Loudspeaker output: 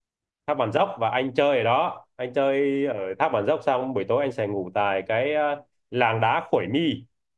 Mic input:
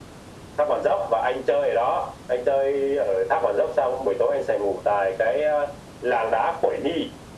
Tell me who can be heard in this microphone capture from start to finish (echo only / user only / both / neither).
echo only